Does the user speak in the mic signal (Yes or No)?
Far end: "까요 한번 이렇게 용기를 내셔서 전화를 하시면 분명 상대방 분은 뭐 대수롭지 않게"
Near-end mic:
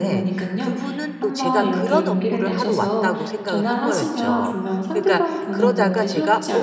Yes